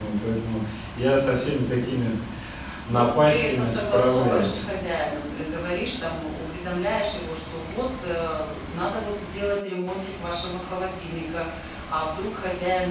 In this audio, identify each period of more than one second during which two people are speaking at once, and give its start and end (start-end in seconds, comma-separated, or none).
2.9-4.6